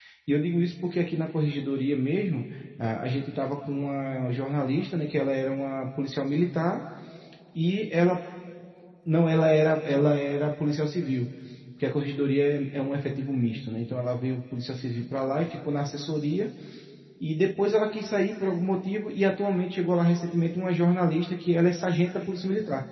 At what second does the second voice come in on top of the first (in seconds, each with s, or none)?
none